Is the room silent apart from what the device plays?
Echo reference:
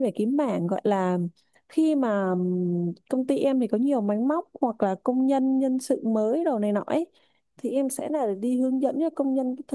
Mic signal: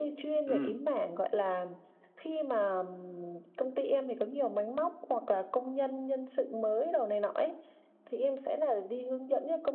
No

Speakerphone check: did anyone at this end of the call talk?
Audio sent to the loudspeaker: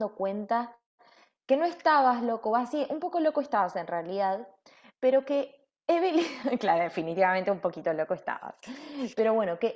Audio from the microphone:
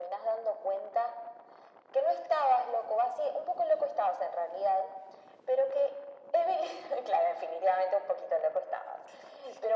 No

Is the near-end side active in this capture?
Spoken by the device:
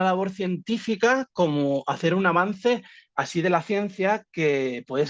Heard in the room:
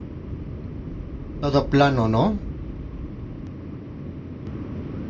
Yes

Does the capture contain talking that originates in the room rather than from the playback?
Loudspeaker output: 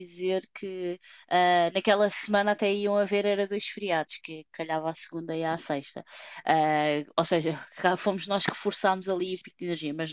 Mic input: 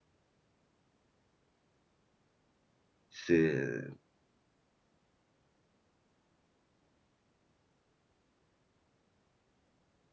Yes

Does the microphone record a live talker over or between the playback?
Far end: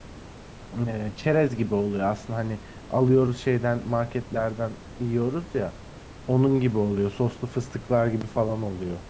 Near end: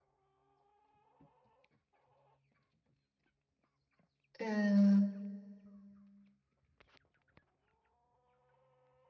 Yes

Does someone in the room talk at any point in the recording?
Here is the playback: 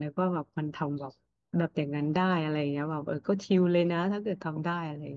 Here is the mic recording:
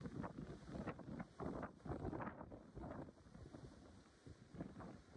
No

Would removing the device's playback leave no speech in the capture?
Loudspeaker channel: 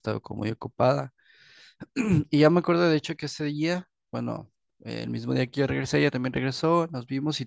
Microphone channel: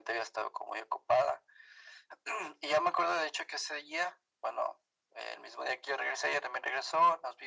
Yes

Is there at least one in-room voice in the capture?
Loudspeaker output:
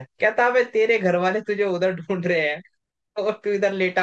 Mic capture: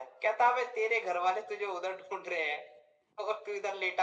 No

